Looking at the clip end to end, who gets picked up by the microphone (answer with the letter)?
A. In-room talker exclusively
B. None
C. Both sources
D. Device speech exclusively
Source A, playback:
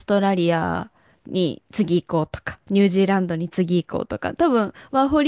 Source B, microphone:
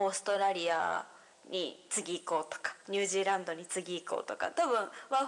D